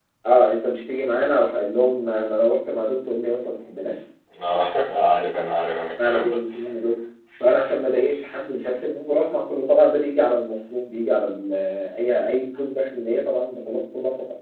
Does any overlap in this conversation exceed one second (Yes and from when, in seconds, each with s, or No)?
No